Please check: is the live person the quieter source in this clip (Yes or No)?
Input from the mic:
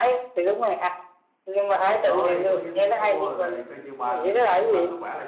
Yes